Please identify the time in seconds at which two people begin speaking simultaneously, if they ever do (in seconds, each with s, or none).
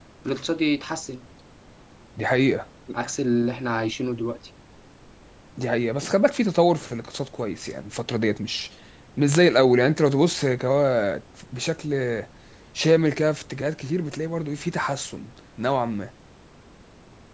none